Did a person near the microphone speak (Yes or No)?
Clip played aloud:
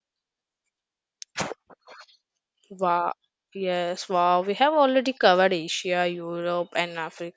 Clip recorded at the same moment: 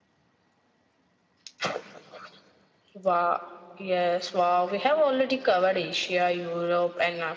No